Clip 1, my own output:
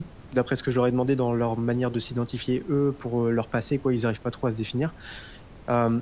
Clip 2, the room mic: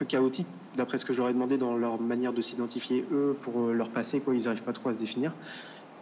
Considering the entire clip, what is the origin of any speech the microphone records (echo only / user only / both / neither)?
echo only